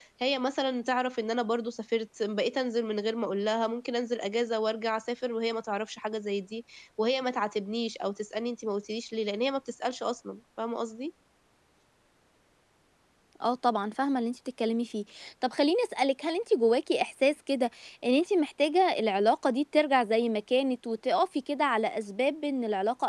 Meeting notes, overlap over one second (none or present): none